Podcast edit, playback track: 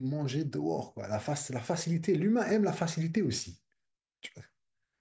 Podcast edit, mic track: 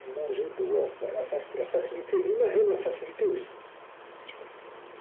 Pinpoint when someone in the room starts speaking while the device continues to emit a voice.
none

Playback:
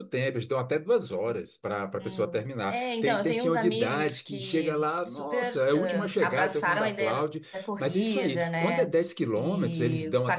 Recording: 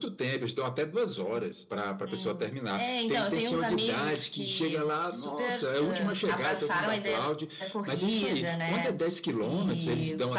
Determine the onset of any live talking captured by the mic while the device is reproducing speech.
none

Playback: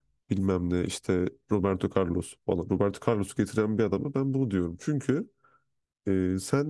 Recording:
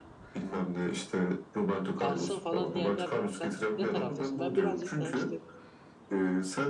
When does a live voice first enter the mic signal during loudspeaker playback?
1.9 s

